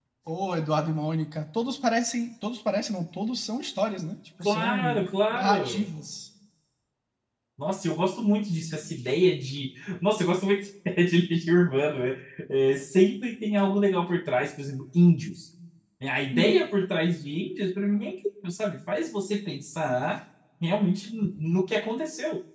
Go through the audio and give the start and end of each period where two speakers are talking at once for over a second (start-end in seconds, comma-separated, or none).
4.5-5.9